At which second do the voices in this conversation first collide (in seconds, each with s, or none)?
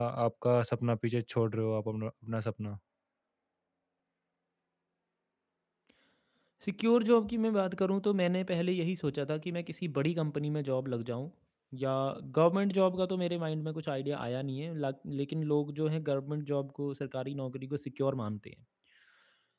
none